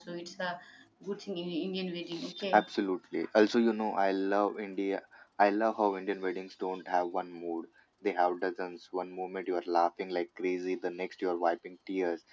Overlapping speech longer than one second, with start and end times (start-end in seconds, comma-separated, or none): none